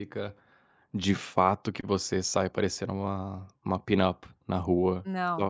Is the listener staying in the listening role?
Yes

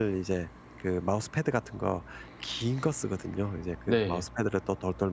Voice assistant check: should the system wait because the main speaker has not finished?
Yes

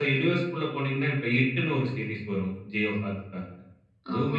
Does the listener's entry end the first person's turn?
No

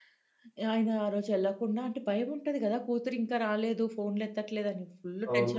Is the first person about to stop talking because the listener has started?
Yes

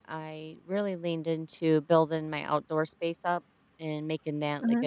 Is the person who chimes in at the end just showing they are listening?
Yes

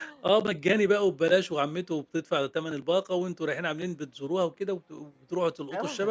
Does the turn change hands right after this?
Yes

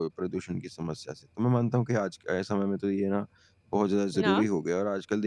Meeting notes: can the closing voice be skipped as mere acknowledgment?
Yes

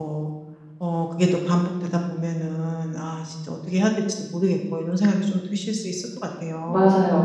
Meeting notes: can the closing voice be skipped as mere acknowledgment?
No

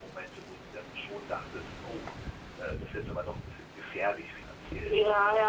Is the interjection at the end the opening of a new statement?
Yes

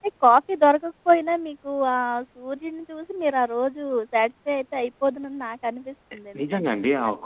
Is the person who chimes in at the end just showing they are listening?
No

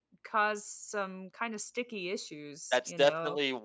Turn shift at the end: Yes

